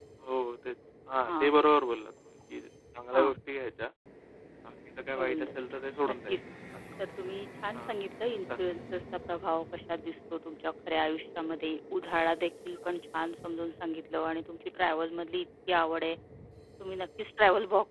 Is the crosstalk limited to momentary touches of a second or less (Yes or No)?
No